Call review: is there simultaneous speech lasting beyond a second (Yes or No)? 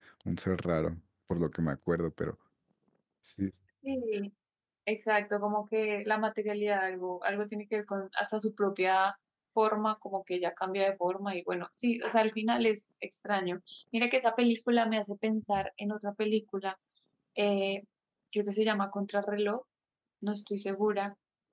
No